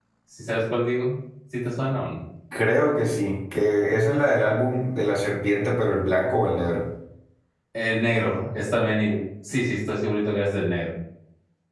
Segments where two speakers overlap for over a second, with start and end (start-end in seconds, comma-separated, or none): none